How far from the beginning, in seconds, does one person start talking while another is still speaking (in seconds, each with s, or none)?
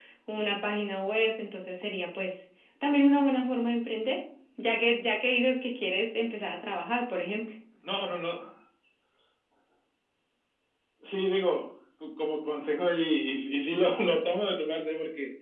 none